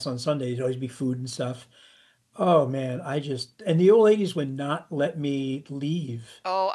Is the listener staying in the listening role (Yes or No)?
No